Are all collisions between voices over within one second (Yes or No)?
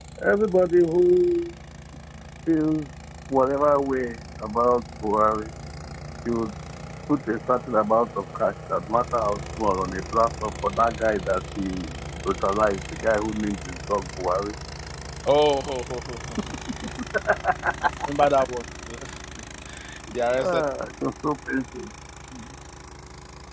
Yes